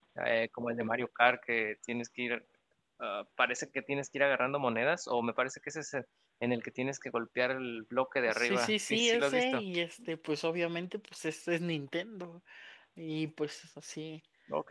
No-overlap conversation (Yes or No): No